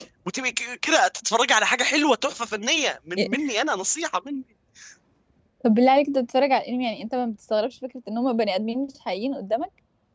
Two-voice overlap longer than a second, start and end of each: none

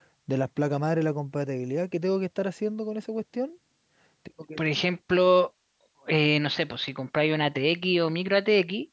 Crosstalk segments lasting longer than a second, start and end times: none

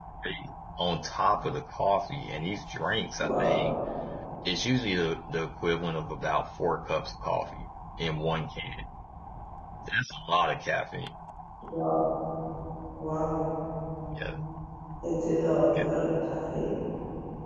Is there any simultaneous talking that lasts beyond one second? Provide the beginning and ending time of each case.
none

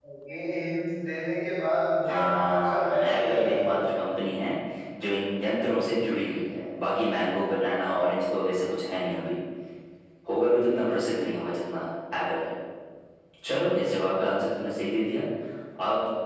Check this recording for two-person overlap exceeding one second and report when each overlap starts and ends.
2.1-3.7

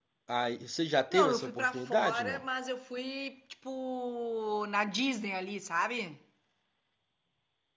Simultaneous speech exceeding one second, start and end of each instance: 1.1-2.4

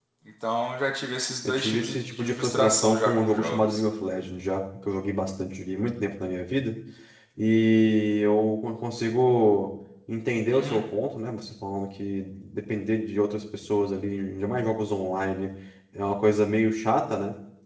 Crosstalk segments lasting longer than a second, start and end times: 1.5-3.8

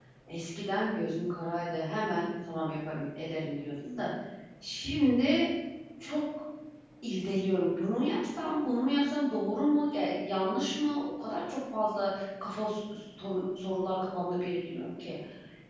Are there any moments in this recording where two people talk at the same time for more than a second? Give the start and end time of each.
none

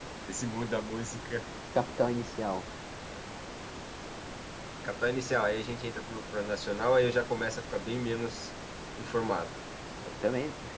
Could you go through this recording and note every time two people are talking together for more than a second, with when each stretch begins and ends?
none

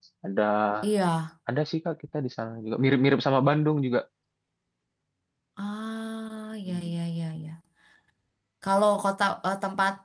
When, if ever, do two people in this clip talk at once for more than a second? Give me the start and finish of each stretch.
none

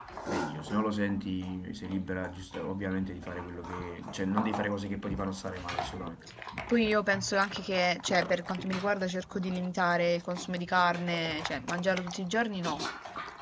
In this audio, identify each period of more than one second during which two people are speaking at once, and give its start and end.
none

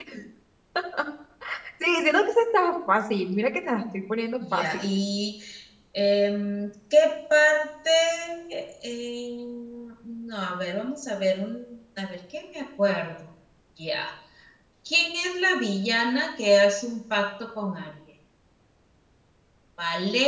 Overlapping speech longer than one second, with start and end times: none

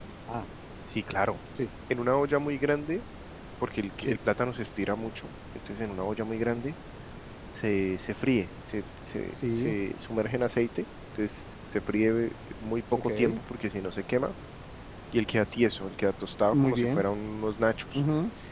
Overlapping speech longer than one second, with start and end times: none

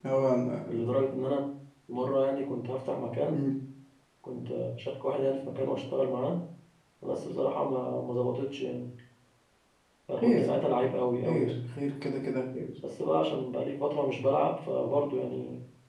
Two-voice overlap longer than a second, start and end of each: none

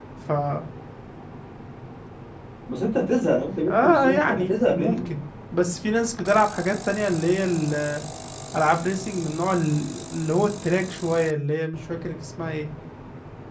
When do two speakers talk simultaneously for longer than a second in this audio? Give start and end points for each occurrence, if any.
3.7-5.0

